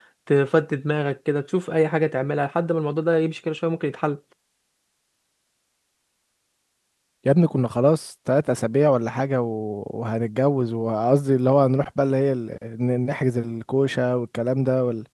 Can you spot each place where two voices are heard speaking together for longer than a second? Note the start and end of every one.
none

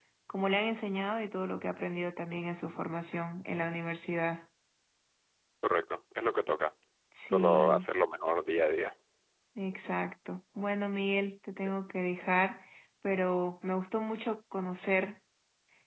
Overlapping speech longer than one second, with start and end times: none

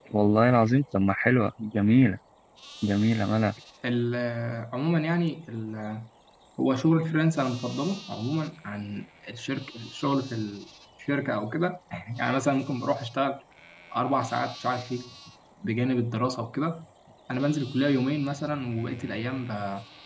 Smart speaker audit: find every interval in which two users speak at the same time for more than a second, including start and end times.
none

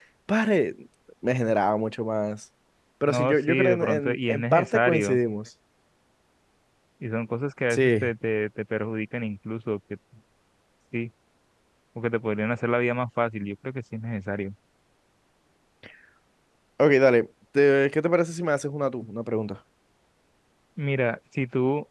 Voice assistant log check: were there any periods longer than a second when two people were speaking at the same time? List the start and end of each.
3.1-5.2

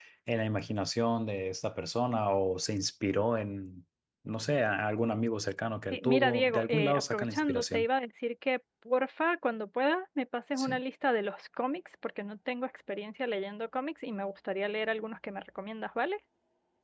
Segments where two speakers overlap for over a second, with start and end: 5.9-7.8

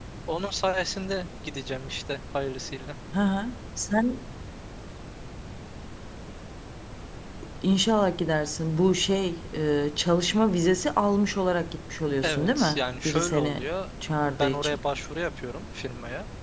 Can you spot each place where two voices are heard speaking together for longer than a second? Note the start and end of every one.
12.2-13.7

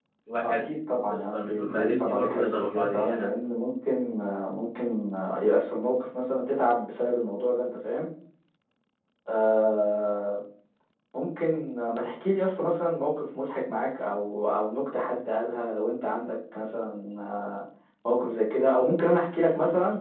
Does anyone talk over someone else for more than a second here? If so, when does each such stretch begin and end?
1.1-3.3

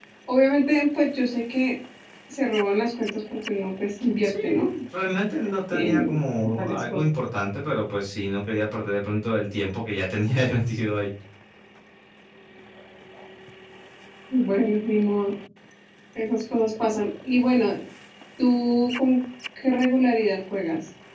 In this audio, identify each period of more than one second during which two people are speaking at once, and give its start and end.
5.7-7.0

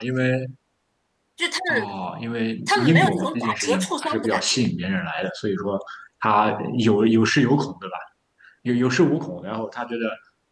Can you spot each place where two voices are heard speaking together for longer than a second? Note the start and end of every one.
2.7-4.6

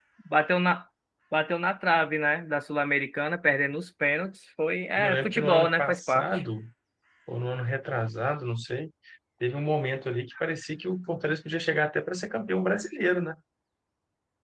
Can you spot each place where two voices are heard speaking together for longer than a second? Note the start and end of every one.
5.0-6.4

